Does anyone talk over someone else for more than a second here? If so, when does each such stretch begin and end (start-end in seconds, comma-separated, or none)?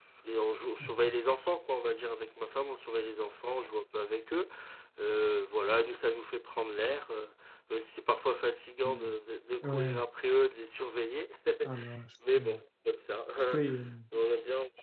none